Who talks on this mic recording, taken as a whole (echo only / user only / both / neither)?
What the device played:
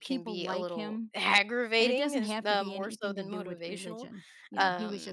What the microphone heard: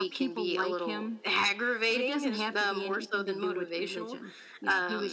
echo only